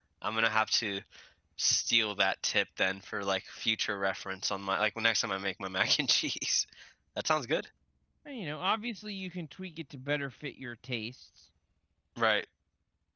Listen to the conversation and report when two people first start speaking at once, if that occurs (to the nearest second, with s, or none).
none